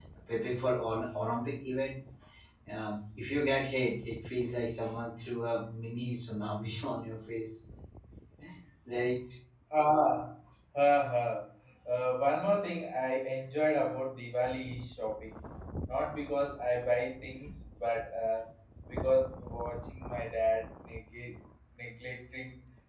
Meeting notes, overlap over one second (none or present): none